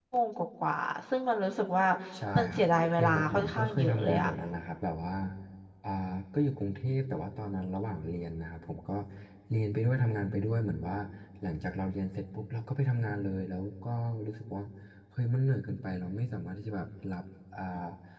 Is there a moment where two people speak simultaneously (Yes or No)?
Yes